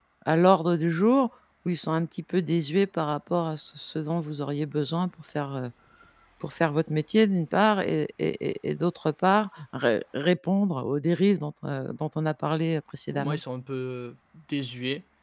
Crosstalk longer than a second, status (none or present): none